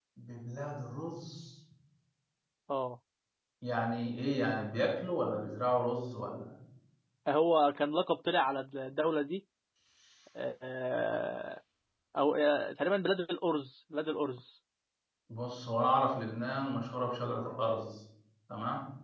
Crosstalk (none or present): none